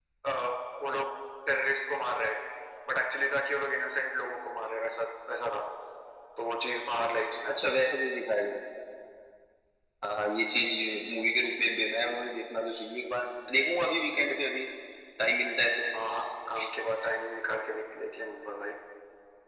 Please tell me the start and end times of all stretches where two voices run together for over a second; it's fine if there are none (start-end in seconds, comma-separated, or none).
none